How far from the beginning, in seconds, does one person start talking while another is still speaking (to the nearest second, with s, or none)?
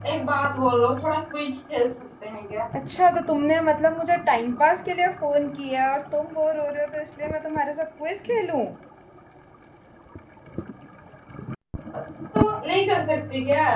none